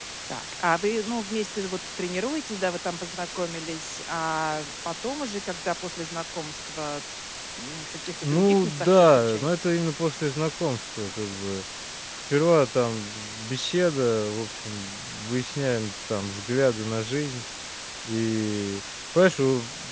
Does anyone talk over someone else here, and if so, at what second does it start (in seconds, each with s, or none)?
8.2 s